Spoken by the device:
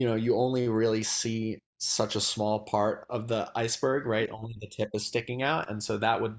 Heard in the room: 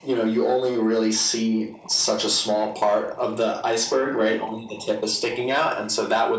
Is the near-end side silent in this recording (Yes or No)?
Yes